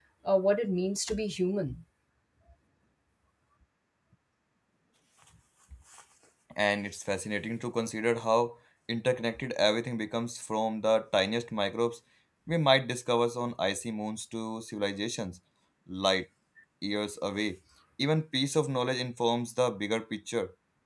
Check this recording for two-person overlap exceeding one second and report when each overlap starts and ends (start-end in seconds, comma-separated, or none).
none